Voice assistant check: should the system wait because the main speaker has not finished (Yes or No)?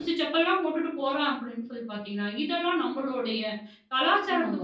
No